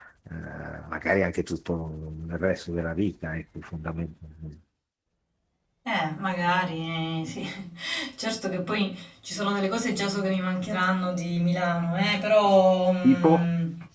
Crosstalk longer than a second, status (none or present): none